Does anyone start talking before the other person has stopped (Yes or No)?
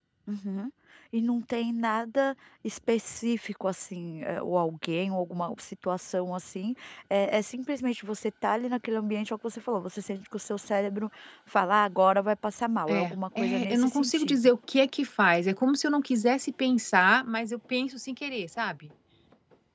Yes